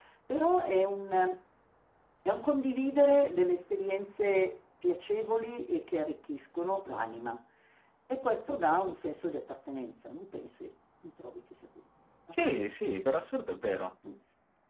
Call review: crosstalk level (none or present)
none